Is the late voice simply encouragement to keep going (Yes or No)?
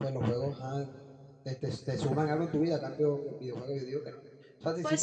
Yes